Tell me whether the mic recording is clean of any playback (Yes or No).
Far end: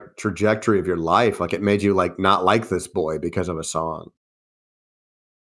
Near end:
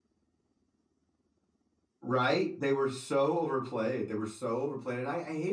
Yes